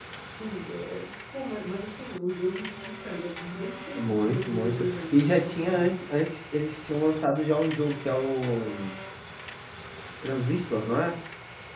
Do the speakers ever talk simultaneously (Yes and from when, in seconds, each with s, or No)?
Yes, from 4.0 s